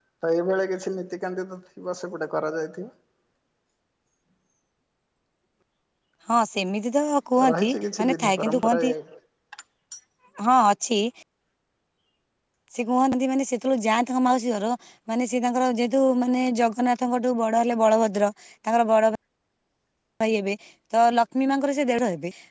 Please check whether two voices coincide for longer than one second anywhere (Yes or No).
Yes